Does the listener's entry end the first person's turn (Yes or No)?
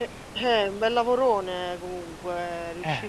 No